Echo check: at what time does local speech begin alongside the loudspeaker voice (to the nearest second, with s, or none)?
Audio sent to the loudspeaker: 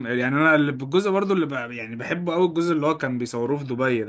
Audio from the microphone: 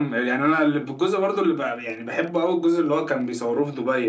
none